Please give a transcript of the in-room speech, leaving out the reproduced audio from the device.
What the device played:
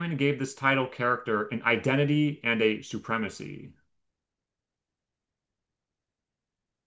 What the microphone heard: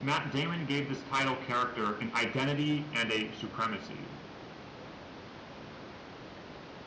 none

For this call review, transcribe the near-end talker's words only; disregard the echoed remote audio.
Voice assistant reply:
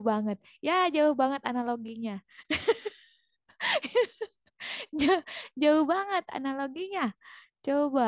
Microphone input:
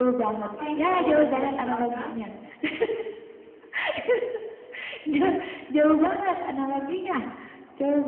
apa yang selalu ada di belakang

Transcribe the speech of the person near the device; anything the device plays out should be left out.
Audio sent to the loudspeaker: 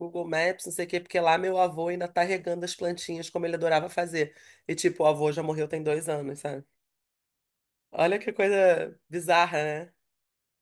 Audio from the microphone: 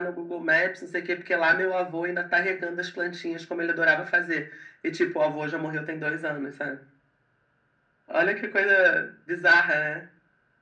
none

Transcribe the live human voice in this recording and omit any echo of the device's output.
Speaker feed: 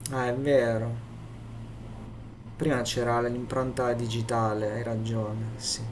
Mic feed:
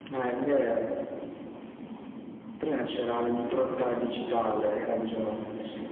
none

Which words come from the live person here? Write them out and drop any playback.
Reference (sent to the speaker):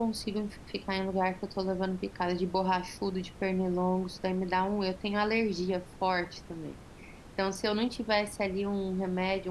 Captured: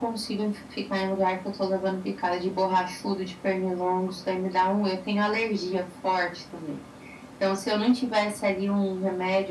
none

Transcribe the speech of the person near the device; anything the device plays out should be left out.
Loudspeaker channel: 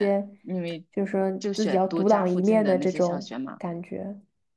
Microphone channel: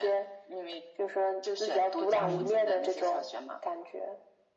嗯，

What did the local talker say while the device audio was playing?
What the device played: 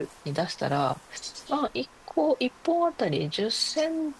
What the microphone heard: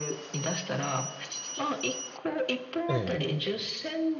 え、ええ。

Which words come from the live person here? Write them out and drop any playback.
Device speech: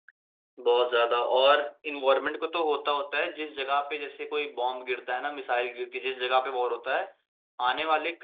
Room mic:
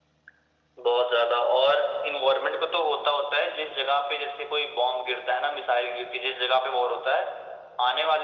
none

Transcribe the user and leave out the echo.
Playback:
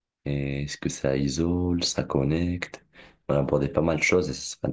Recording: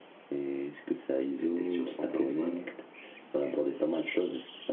il était sur son téléphone.

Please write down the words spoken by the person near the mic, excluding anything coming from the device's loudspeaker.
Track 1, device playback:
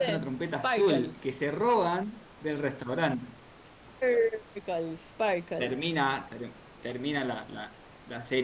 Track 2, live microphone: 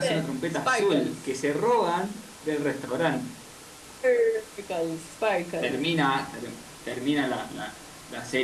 none

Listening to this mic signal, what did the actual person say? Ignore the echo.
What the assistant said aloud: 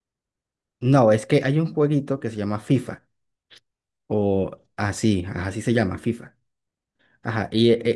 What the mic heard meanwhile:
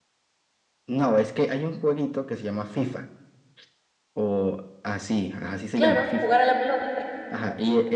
Claro, jugar a la pelota.

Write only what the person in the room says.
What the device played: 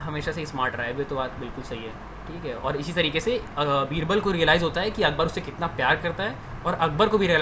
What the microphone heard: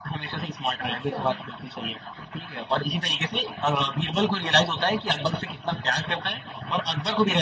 अच्छा

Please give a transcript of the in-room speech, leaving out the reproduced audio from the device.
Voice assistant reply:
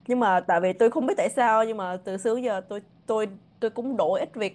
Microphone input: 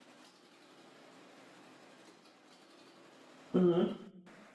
ừ,

